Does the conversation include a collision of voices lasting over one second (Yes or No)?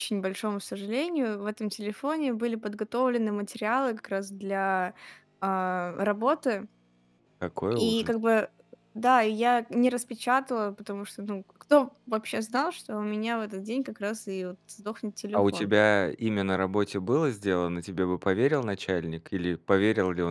No